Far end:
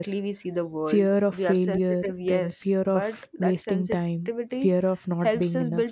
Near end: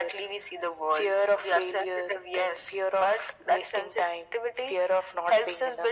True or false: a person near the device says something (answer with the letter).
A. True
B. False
B